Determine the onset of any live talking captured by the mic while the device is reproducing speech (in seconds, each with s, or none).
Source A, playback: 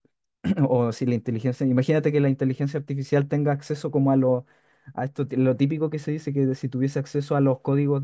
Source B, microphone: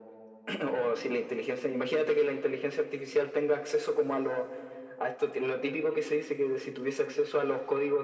none